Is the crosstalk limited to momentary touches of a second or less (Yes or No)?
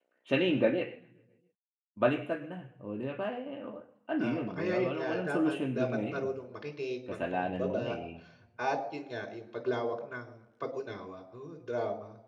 No